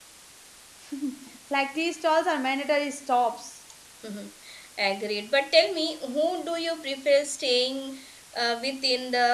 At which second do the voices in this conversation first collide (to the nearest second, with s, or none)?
none